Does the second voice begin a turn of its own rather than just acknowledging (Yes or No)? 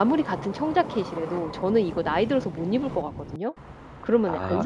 Yes